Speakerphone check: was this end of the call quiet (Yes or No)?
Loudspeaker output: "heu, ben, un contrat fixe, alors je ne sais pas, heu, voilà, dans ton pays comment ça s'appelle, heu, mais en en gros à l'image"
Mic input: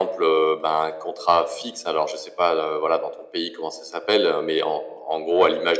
Yes